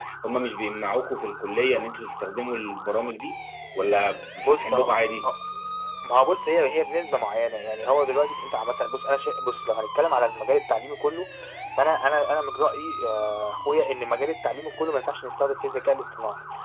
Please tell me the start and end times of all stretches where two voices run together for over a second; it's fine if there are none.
none

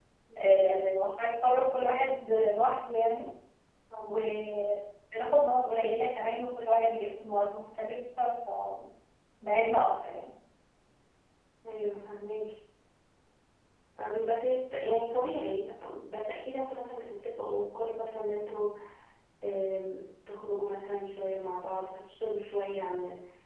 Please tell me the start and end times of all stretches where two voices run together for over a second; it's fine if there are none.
none

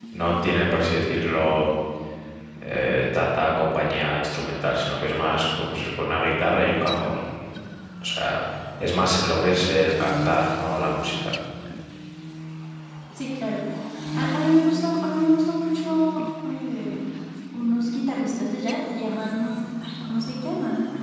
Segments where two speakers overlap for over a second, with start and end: none

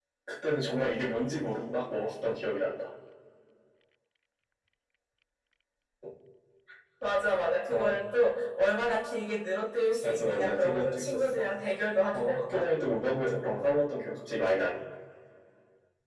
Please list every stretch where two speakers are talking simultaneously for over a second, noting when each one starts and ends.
10.0-11.5

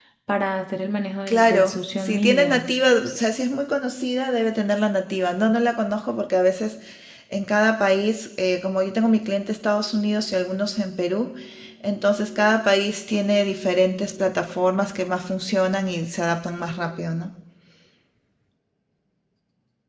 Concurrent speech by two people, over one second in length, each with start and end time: 1.3-2.6

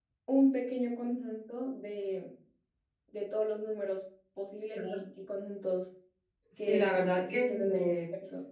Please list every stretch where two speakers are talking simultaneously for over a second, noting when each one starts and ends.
6.6-7.8

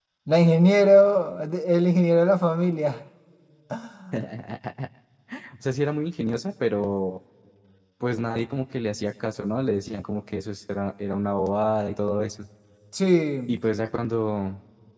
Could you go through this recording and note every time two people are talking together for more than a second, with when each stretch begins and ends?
none

